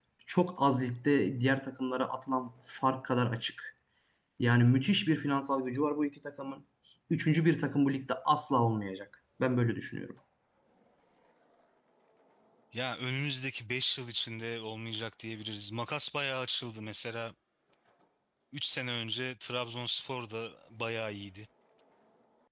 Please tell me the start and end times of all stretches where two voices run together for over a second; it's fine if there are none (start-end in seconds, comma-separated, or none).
none